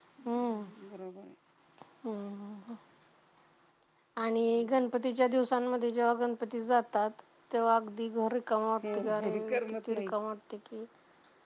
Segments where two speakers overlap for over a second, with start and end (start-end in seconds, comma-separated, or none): 8.8-10.1